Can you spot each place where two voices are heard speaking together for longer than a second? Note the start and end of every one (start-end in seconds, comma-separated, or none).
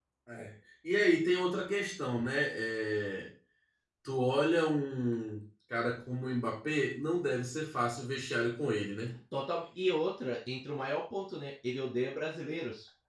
none